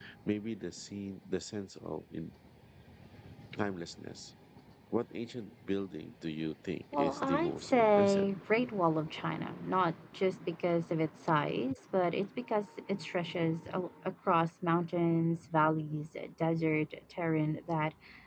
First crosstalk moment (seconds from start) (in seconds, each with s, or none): 6.9 s